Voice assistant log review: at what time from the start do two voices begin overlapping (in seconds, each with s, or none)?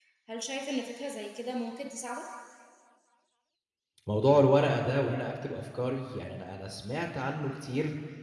none